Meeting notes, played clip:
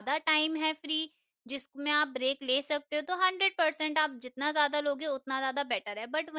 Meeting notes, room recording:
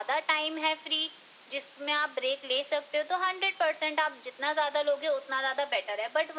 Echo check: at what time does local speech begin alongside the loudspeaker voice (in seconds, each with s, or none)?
none